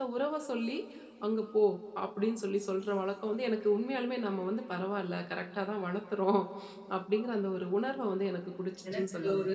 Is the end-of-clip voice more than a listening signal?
Yes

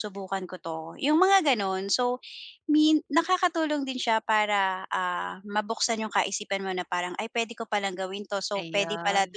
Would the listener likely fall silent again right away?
Yes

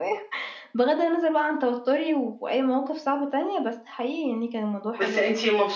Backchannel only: No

